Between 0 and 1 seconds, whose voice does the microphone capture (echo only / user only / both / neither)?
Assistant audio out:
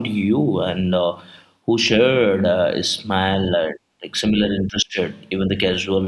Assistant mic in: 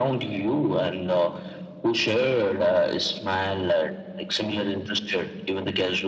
echo only